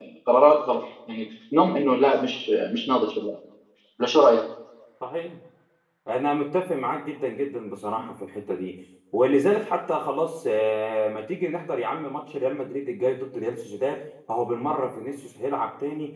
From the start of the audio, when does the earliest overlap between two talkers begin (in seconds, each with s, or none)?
none